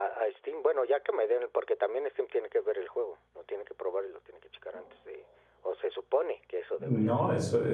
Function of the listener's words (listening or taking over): taking over